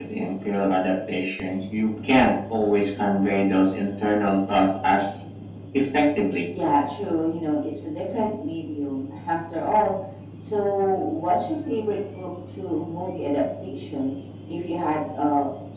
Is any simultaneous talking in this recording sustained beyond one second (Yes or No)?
No